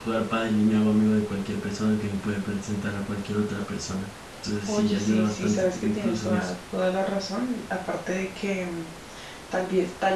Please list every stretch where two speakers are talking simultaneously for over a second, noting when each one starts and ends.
4.7-6.5

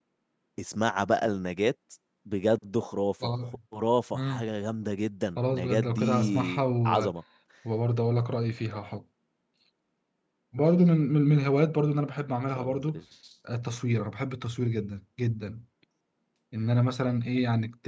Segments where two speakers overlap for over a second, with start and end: 5.4-7.1

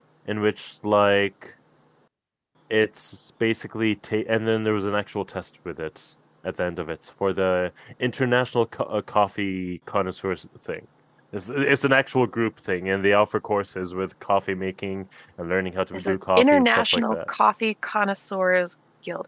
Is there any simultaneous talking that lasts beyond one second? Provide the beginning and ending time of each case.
15.9-17.2

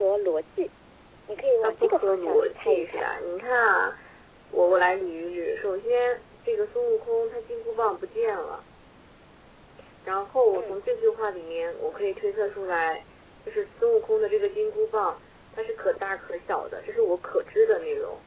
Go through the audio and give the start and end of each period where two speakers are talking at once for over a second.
1.6-3.0

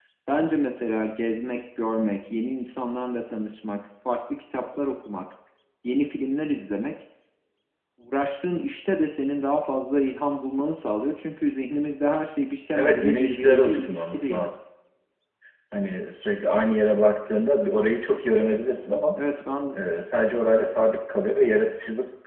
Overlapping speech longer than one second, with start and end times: 12.7-14.5

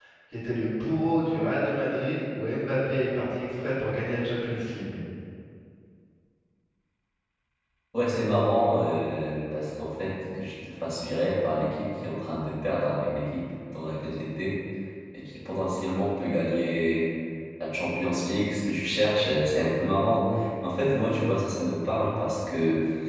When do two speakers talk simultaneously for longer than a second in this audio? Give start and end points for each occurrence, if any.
none

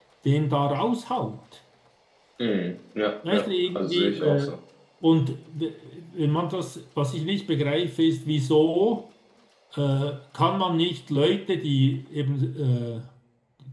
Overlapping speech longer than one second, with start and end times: 3.3-4.5

